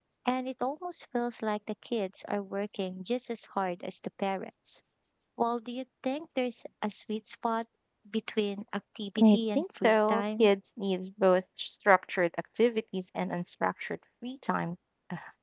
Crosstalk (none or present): present